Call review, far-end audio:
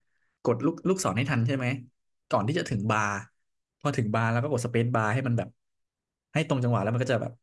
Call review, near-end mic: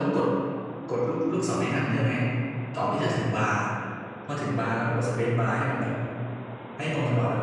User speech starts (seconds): none

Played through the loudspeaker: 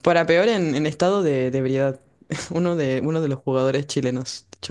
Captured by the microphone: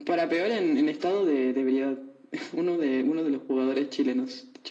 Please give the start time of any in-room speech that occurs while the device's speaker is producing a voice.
none

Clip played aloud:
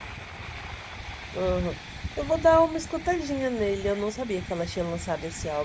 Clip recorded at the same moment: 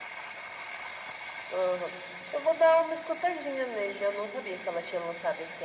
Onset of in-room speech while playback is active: none

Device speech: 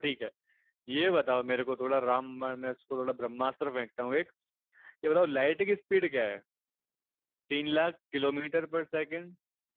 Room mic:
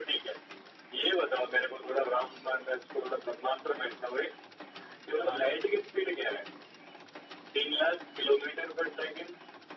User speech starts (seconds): 5.2 s

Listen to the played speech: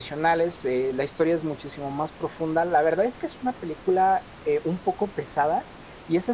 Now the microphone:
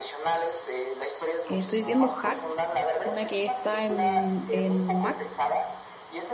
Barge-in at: 1.4 s

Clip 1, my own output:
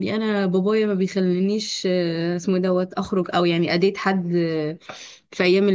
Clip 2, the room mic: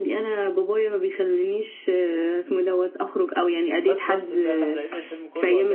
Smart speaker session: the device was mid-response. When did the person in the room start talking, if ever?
3.8 s

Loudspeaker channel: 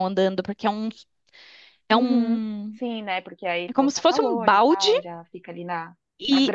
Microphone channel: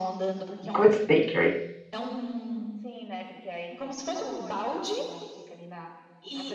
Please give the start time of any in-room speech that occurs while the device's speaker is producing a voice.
0.7 s

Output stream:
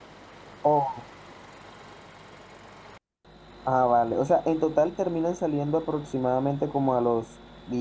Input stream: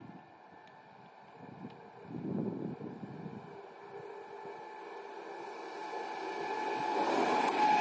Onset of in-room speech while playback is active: none

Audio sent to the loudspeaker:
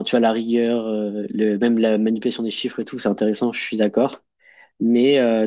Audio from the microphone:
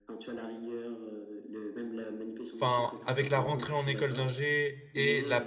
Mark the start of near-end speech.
2.5 s

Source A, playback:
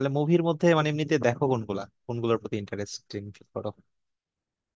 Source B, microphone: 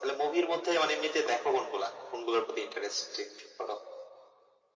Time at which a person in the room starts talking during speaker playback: none

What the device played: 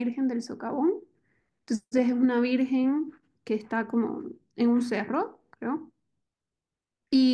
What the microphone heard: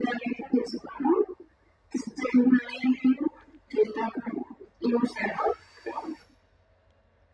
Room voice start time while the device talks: none

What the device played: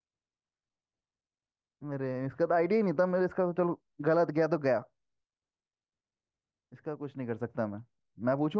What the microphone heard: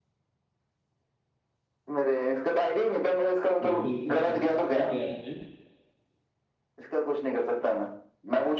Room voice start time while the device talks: 3.7 s

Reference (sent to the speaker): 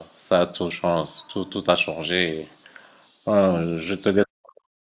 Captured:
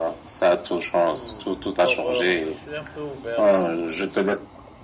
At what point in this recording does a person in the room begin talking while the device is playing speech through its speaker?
1.1 s

